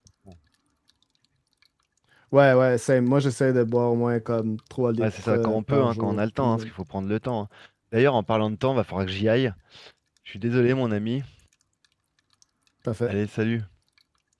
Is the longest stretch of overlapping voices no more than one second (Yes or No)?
No